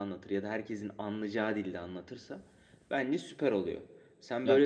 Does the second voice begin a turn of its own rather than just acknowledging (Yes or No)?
Yes